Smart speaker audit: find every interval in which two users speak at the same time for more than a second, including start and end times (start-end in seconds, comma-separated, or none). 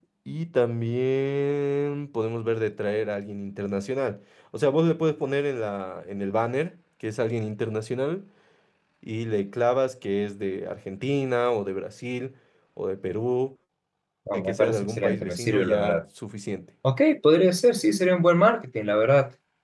14.3-16.0